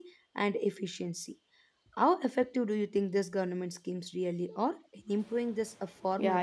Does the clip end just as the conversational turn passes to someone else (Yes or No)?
Yes